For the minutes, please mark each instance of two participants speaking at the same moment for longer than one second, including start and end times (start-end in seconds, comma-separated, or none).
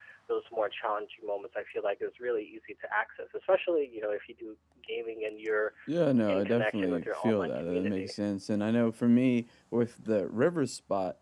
6.3-8.1